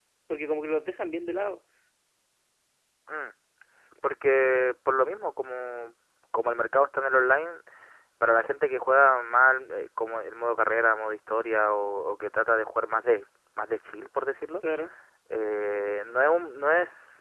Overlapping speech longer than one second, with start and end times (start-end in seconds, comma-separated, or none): none